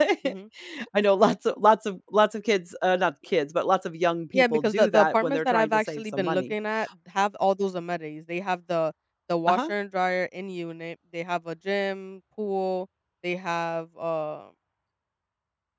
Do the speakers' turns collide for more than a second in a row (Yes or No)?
Yes